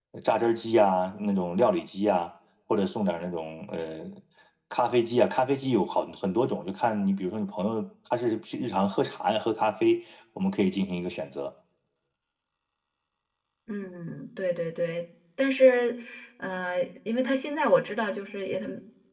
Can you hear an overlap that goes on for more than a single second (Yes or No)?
No